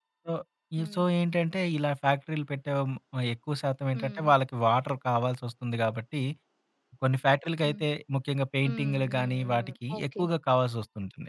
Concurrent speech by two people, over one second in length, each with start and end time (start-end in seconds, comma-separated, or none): 8.7-10.2